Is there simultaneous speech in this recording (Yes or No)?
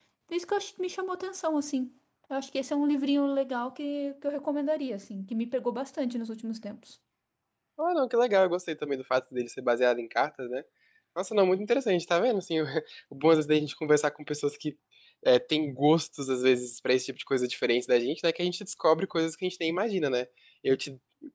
No